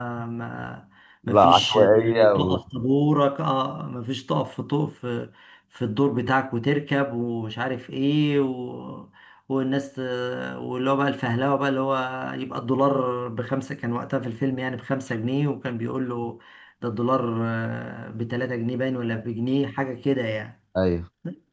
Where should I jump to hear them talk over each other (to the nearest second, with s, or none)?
1 s